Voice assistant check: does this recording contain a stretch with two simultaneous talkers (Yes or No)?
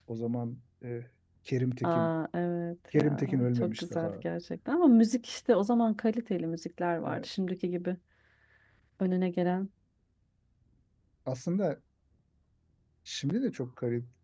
Yes